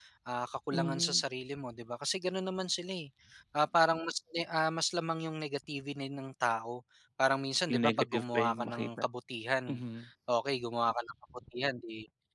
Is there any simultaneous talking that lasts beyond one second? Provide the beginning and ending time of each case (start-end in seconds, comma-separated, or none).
7.7-9.0